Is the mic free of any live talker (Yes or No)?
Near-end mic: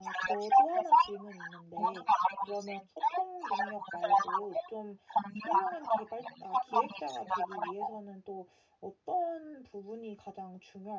No